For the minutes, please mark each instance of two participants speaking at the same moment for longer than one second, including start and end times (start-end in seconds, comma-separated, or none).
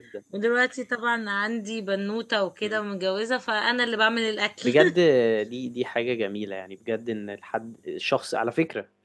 none